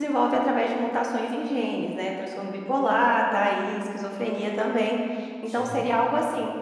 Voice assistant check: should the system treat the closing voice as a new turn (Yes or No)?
No